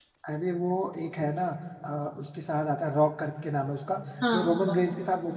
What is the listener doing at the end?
listening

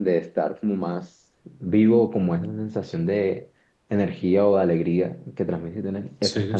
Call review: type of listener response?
taking over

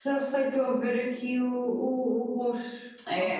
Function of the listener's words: taking over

